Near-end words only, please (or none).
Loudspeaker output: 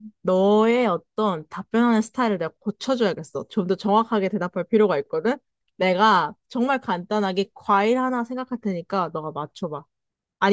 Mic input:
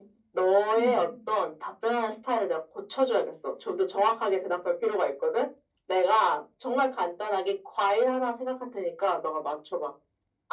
음.